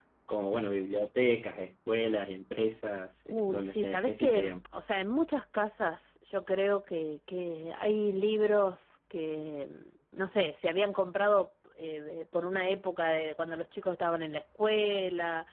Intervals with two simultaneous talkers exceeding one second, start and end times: 3.3-4.5

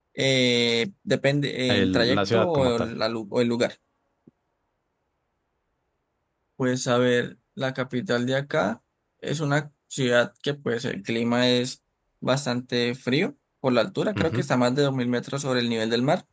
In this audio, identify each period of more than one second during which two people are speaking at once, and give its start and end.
1.7-2.9

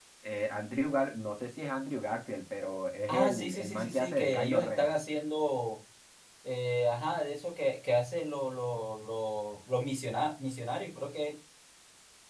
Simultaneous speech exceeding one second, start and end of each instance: 3.1-4.9

